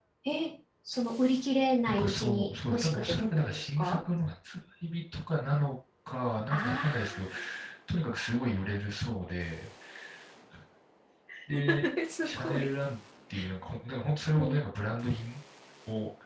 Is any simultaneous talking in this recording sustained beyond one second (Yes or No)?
Yes